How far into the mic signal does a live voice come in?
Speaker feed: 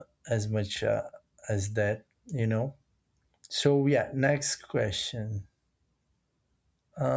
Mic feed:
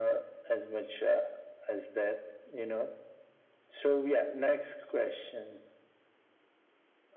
none

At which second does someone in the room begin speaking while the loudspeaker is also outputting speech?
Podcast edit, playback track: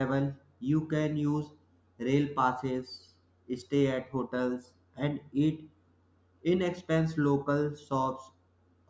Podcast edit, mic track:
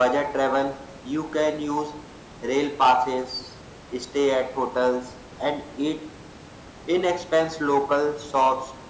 none

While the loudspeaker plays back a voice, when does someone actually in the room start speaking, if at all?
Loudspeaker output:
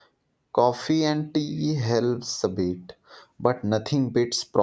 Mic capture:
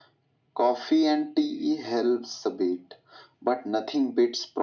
none

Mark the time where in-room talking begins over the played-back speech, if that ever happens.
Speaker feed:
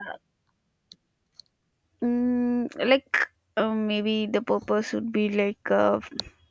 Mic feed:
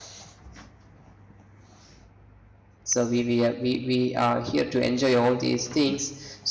2.8 s

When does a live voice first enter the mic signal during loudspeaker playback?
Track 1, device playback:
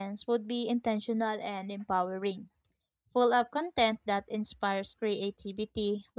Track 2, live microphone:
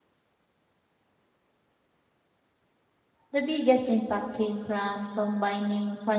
3.3 s

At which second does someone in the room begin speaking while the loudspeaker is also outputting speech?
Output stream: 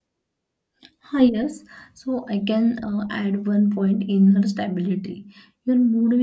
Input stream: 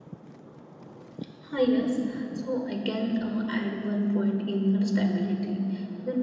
none

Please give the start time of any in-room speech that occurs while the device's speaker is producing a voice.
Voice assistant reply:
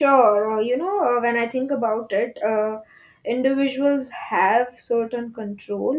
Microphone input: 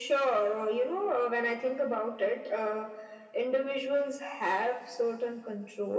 none

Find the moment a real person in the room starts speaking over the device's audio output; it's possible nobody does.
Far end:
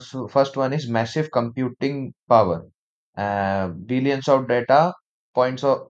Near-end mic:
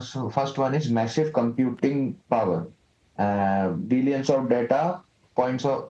none

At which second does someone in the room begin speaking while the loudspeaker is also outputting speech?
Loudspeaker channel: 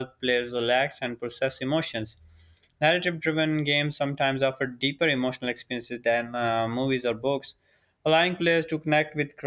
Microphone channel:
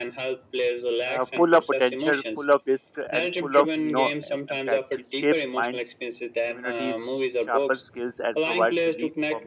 1.0 s

